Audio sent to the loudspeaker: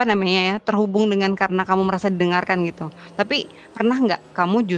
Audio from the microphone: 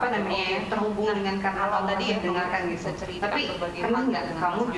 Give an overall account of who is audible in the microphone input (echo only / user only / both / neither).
both